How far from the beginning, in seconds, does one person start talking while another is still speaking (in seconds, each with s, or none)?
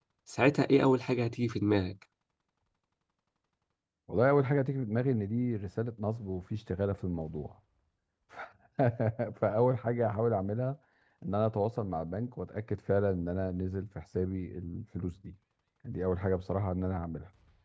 none